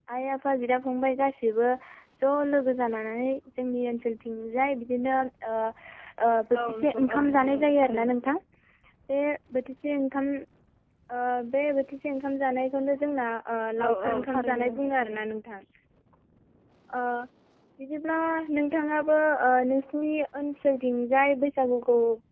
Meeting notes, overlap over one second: present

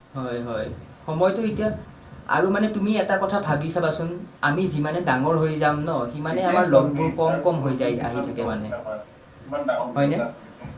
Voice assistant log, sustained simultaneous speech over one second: present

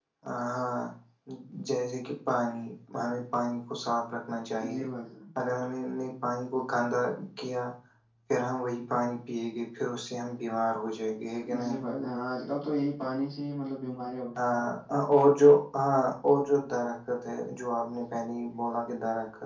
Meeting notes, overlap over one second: none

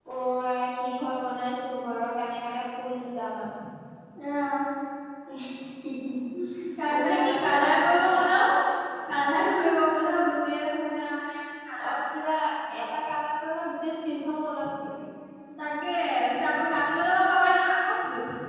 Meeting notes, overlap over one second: present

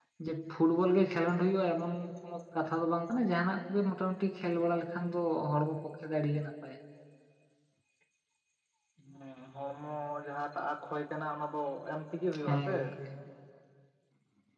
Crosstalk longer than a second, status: none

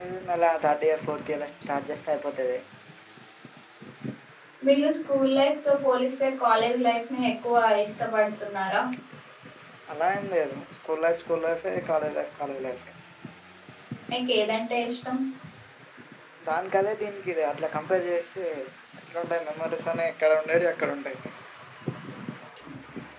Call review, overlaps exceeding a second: none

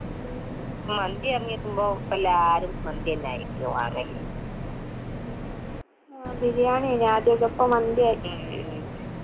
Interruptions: none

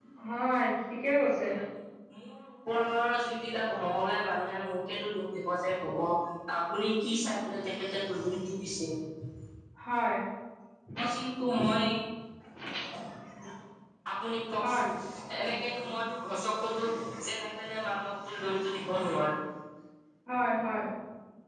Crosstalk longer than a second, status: none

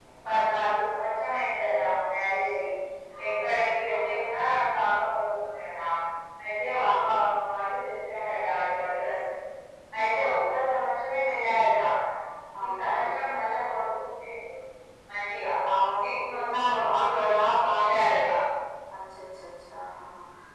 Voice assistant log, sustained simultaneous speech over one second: present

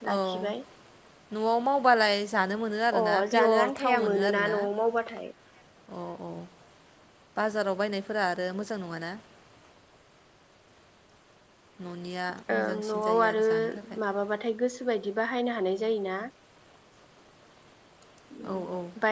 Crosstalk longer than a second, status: present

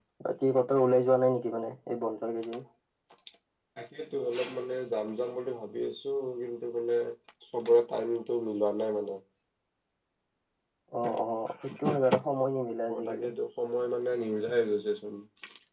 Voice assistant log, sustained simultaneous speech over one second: none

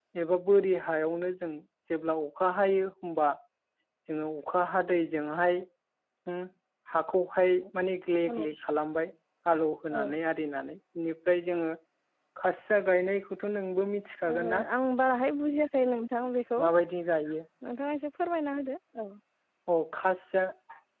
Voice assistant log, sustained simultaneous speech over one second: none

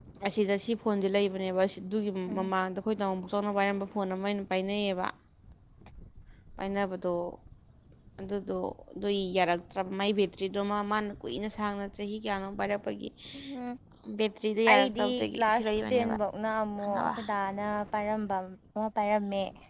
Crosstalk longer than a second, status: present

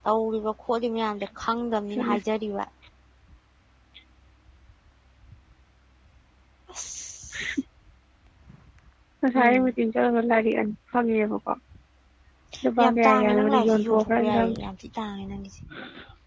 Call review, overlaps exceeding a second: present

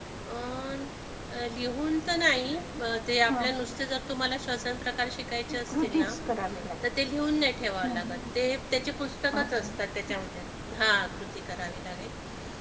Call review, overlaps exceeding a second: none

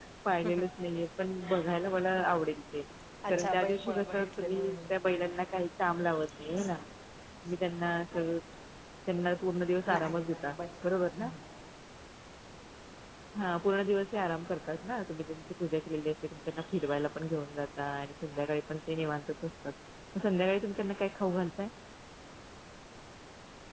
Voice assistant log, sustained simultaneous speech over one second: present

